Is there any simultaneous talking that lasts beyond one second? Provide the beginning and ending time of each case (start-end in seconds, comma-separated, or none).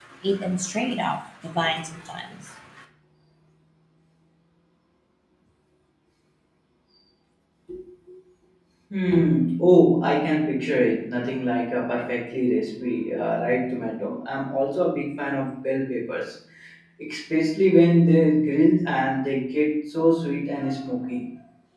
none